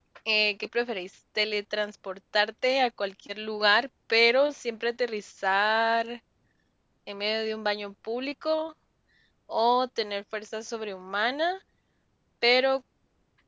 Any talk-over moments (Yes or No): No